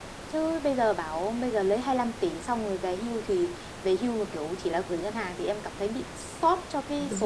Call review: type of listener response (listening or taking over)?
taking over